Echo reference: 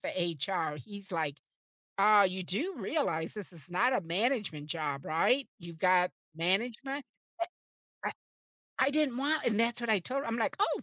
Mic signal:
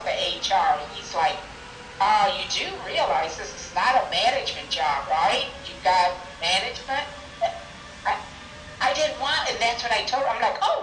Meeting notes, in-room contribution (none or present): none